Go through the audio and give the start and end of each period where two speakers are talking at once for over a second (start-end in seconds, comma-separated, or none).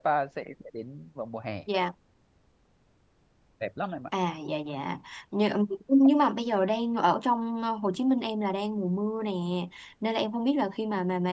none